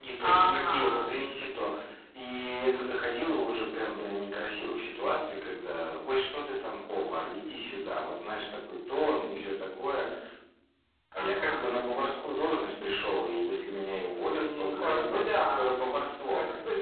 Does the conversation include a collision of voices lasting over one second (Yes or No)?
Yes